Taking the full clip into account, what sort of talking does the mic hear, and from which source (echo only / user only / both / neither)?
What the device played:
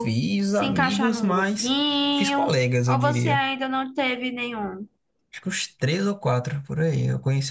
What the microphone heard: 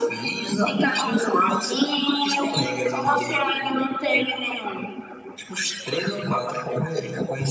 echo only